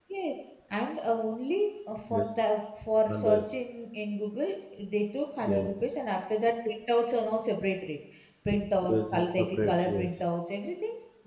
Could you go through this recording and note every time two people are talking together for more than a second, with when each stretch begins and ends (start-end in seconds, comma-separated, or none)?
8.9-10.1